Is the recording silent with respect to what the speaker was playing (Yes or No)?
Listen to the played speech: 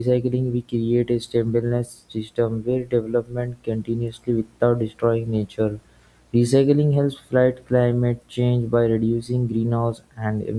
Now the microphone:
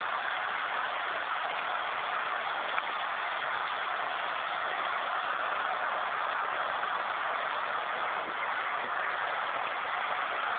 Yes